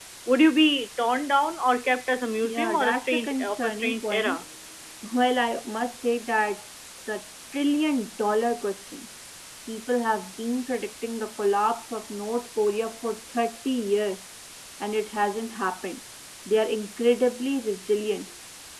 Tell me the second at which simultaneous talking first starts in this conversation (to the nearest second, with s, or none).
2 s